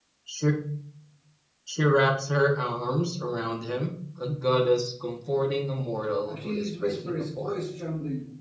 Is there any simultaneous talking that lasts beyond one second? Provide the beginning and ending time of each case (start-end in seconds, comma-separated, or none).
6.3-7.6